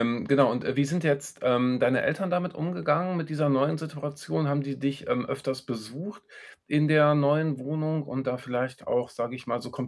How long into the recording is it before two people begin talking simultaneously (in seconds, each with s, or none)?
none